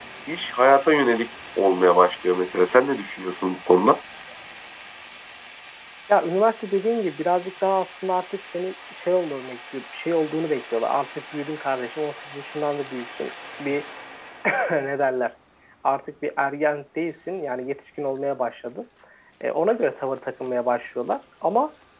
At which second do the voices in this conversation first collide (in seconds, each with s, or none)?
none